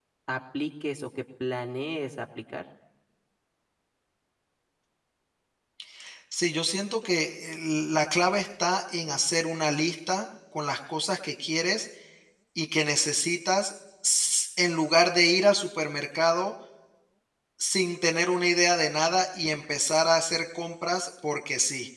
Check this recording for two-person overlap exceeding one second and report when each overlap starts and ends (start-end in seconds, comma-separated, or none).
none